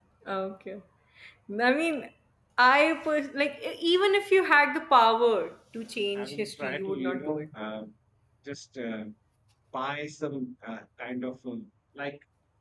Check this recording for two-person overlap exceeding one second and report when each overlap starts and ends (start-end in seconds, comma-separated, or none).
6.2-7.5